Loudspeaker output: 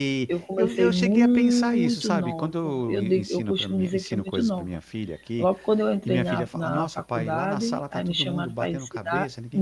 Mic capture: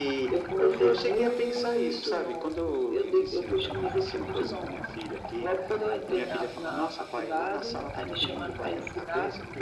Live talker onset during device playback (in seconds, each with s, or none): none